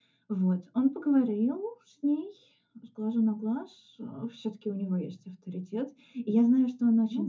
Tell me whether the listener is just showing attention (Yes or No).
Yes